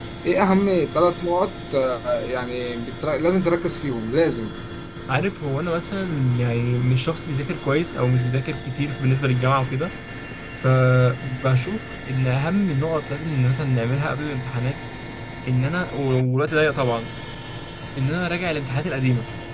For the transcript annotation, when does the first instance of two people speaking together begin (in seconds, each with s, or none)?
none